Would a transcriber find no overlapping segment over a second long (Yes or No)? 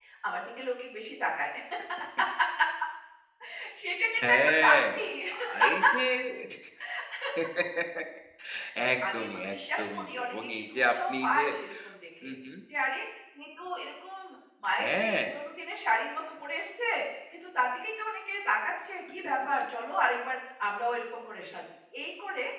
No